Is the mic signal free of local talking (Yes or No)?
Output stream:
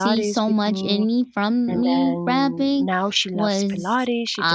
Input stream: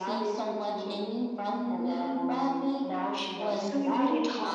No